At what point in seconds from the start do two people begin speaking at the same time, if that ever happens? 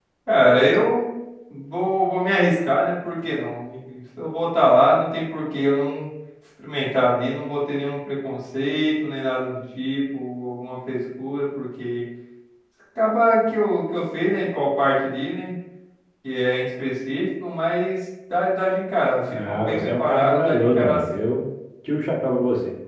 19.3 s

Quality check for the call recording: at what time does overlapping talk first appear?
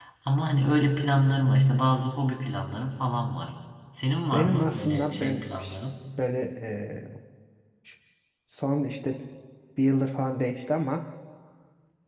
4.3 s

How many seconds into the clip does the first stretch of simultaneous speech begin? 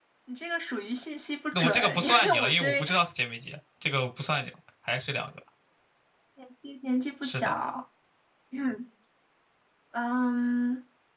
1.5 s

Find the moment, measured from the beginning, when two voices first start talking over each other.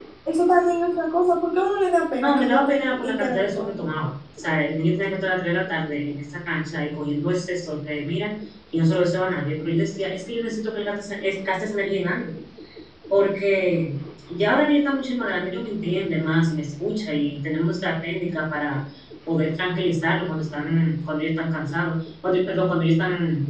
2.2 s

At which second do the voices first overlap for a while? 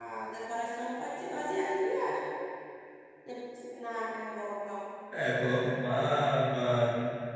none

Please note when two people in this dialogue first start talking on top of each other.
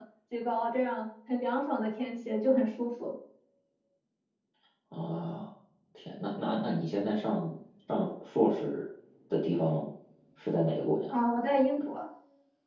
none

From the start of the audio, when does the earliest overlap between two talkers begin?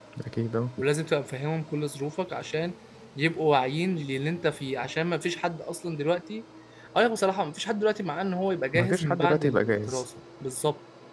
8.7 s

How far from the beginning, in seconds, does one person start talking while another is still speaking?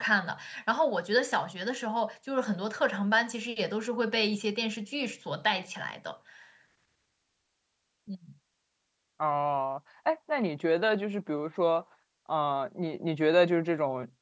none

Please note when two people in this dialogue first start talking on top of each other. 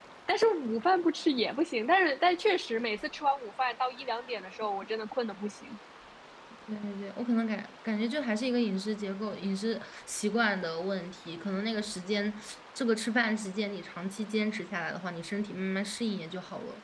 none

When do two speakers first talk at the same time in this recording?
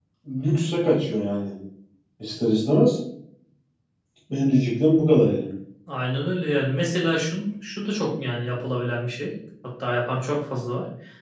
none

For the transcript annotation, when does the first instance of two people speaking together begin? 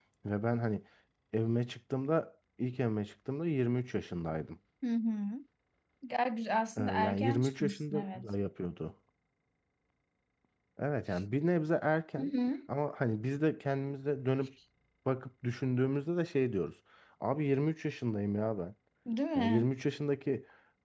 6.8 s

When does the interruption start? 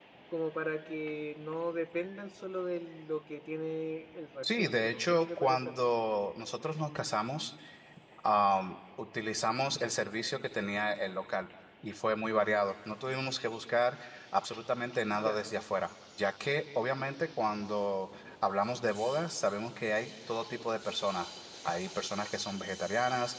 4.4 s

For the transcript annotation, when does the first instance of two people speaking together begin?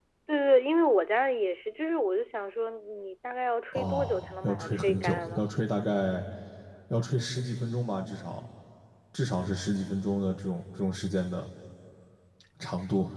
3.7 s

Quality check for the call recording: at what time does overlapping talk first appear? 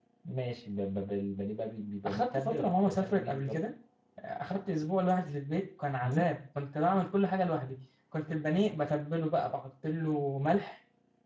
2.0 s

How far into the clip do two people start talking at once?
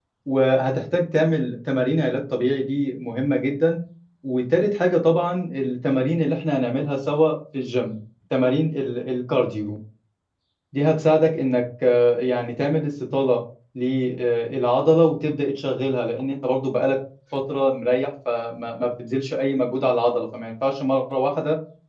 none

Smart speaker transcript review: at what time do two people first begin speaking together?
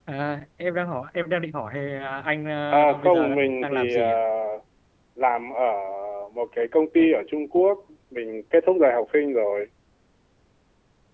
2.7 s

